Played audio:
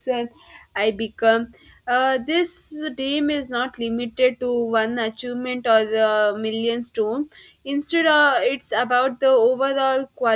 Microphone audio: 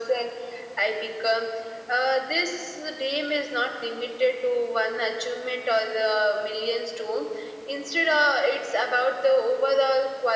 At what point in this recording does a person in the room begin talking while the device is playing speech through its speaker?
none

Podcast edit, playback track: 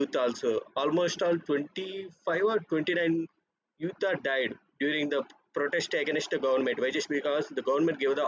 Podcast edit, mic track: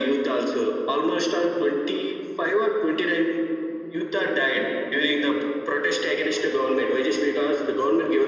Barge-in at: none

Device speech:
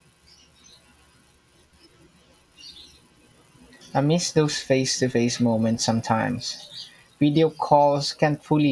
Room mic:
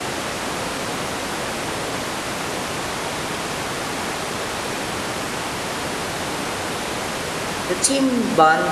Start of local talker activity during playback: 7.7 s

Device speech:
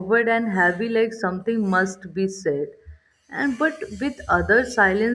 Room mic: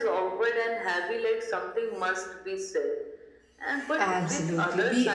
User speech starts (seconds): 4.0 s

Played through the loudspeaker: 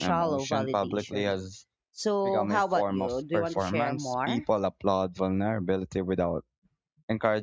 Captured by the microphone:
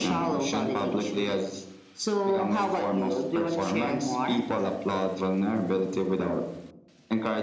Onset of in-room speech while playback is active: none

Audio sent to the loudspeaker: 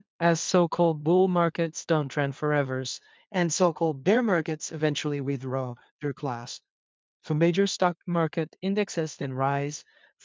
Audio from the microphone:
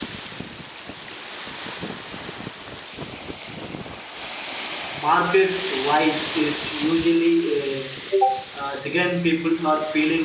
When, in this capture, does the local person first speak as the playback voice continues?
5.0 s

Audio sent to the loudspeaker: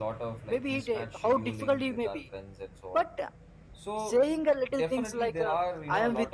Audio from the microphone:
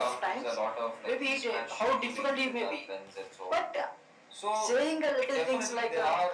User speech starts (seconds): none

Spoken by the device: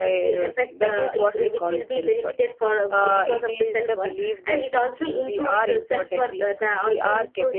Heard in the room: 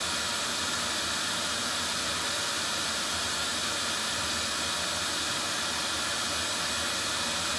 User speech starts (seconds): none

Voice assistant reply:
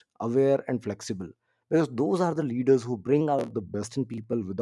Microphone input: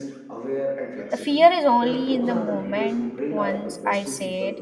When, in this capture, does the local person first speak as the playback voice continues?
1.1 s

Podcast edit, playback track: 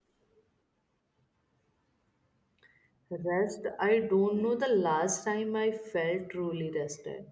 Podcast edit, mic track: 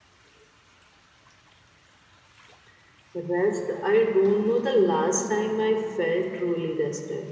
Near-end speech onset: none

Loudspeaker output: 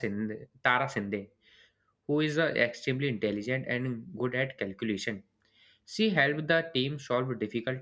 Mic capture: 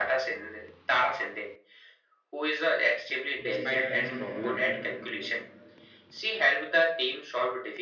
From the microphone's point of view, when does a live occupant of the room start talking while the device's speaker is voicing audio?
3.4 s

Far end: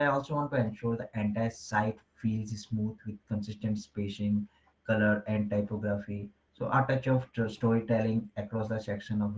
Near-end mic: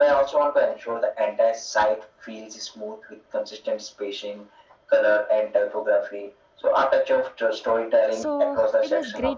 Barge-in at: 8.1 s

